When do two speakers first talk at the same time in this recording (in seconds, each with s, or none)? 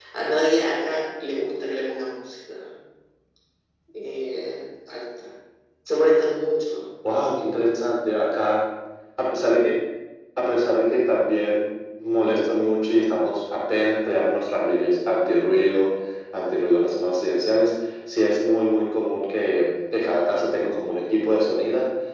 none